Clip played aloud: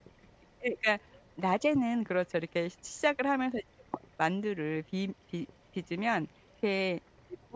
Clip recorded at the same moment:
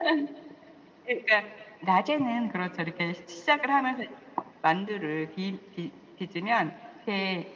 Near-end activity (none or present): none